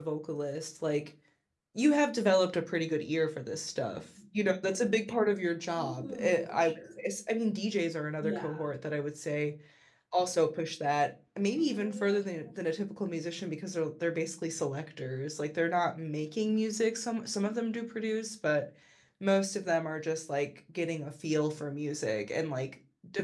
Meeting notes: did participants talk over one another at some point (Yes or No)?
Yes